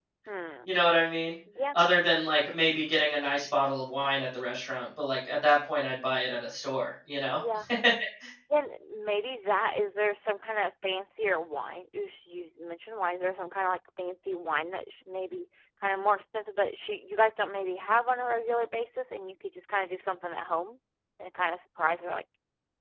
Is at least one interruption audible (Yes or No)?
No